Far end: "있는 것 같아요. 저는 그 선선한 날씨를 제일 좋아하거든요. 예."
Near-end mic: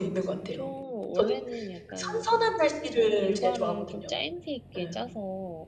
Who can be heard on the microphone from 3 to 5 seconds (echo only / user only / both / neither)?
both